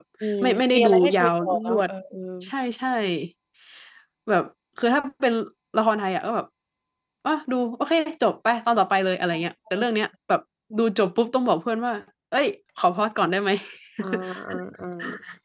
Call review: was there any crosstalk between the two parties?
Yes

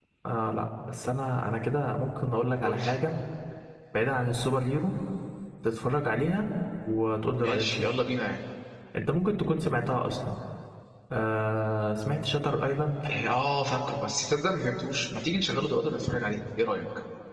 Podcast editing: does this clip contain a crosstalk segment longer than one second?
No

